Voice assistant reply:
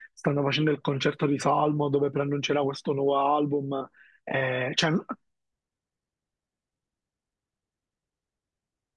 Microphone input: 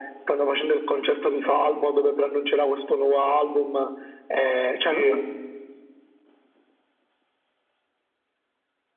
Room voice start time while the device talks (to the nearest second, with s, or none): 5 s